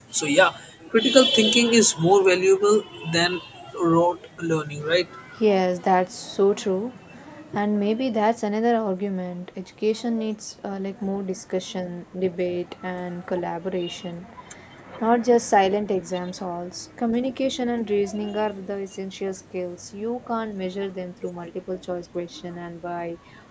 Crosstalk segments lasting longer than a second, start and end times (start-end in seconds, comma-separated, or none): none